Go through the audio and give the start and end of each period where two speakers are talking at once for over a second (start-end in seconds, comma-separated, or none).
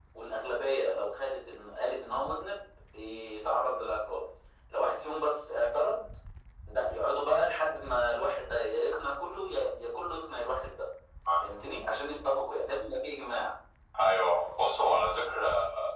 none